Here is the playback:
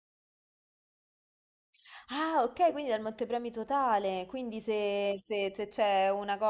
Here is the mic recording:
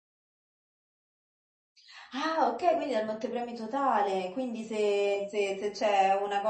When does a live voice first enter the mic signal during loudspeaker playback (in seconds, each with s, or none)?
none